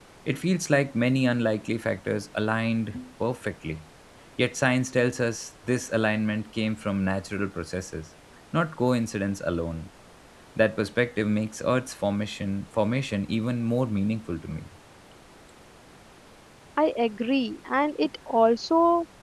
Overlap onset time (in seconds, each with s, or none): none